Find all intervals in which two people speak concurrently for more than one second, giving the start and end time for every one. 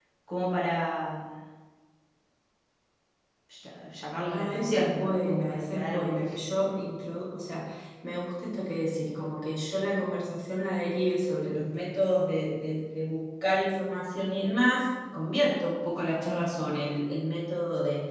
4.3-6.2

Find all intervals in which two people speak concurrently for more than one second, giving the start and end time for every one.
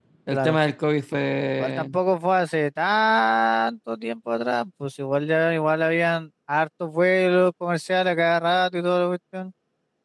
none

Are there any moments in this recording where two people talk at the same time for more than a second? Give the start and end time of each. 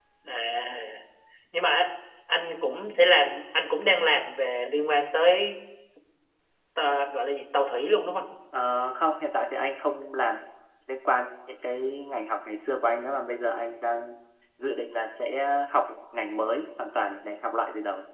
none

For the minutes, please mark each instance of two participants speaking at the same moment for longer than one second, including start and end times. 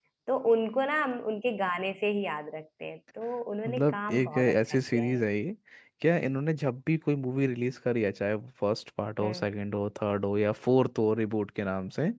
3.6-5.2

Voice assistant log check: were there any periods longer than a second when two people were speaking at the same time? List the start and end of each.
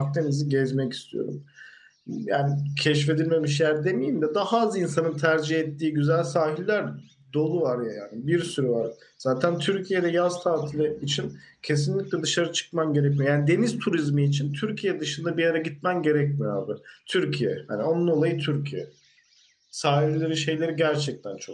none

